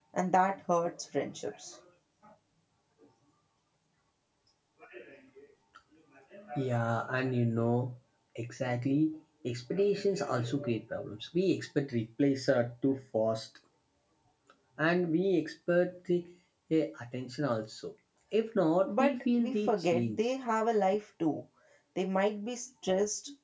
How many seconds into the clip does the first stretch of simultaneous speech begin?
19 s

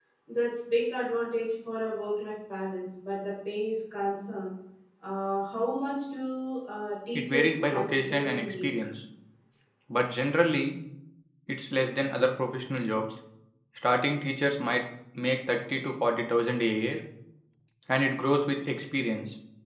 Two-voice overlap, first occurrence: 7 s

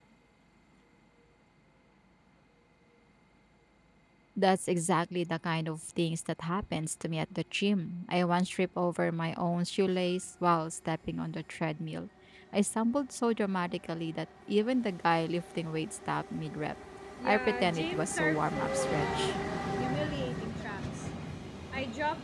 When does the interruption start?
17 s

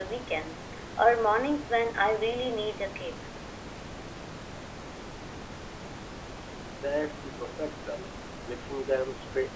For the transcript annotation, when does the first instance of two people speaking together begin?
none

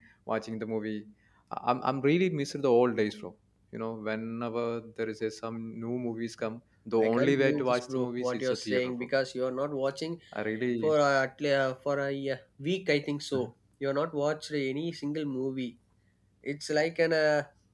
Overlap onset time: 7 s

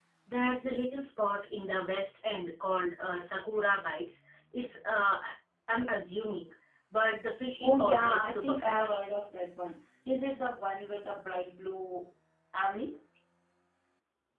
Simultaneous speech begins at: 8 s

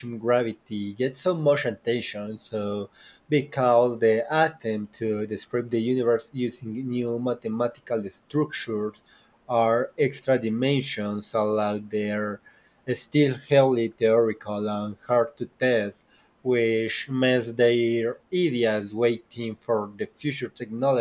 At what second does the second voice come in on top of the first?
none

